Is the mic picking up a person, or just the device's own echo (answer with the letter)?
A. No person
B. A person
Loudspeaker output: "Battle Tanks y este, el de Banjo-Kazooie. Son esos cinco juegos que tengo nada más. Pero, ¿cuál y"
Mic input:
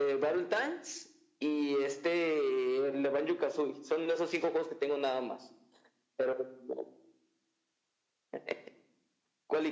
A